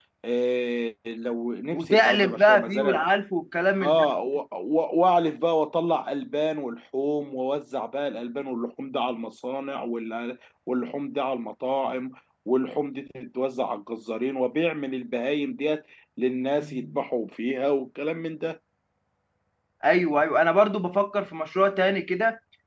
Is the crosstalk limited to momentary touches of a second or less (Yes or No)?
No